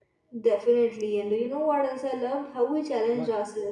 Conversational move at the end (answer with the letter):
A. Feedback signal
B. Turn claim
A